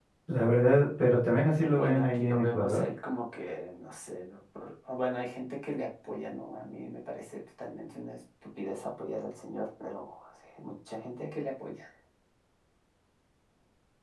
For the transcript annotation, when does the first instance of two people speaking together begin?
1.6 s

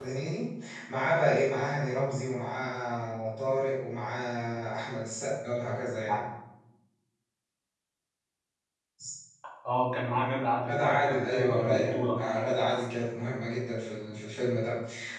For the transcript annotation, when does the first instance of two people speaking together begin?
10.7 s

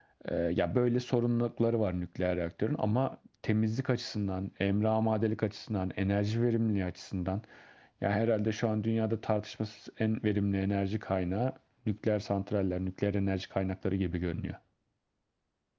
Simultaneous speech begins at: none

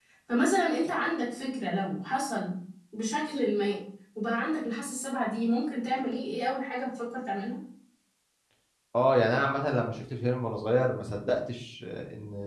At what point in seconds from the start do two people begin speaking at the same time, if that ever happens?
none

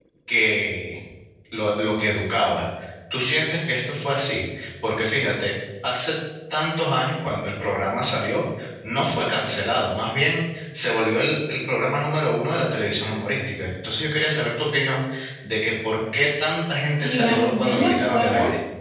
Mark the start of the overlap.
17.0 s

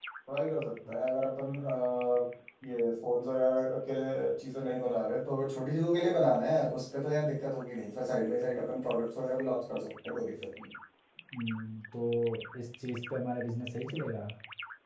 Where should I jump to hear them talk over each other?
none

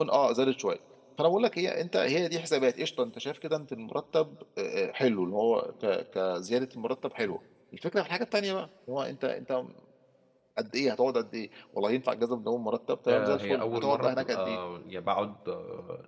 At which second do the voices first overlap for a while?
13.1 s

